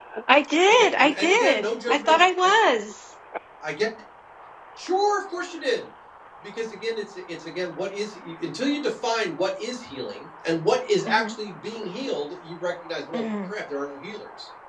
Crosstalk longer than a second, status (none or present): present